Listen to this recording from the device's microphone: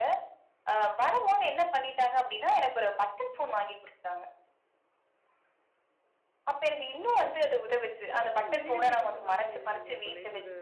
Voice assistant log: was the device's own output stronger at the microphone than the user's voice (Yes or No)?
Yes